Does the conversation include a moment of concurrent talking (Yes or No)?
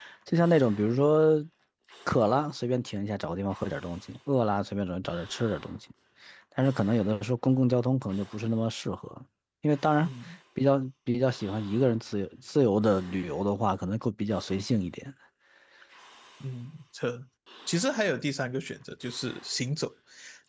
No